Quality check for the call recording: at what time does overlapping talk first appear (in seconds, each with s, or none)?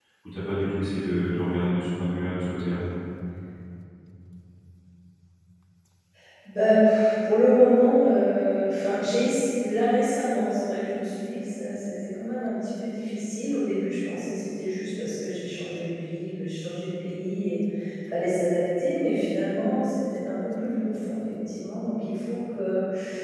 none